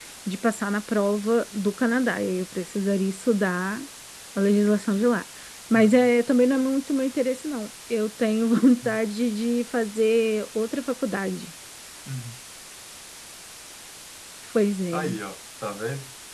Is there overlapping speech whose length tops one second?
No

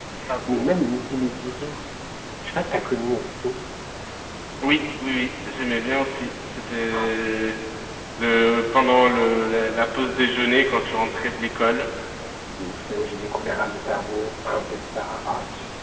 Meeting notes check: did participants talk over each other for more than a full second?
No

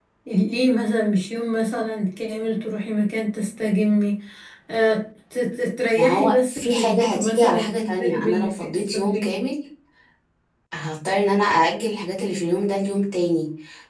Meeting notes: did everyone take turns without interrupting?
No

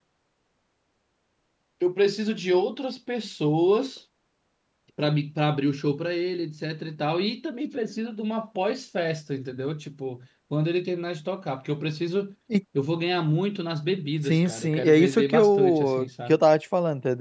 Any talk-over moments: Yes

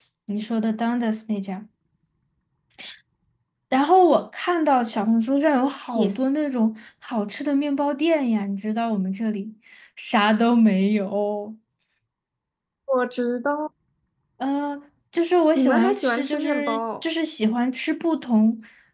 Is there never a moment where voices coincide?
No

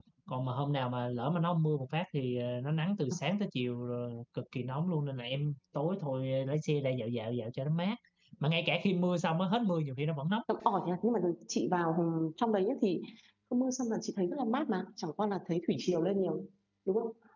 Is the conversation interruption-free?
Yes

